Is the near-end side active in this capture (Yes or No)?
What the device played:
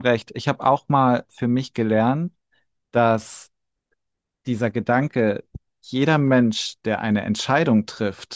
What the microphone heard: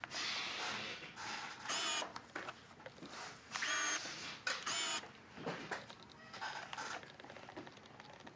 No